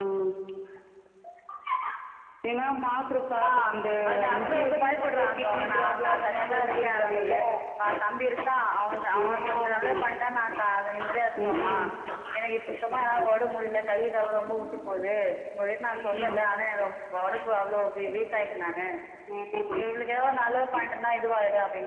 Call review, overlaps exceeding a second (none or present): present